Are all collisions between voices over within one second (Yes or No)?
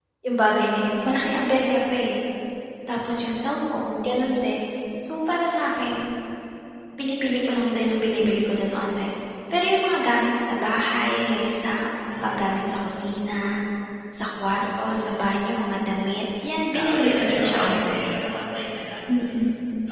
No